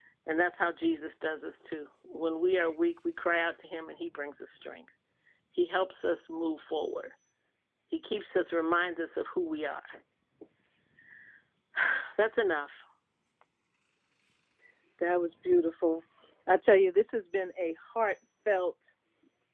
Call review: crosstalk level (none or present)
none